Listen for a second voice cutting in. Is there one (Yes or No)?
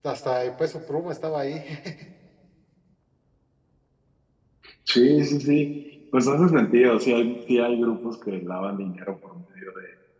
No